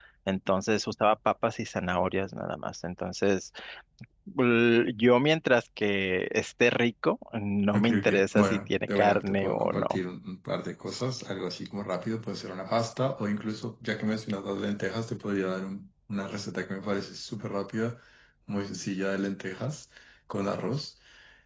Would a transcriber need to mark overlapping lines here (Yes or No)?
Yes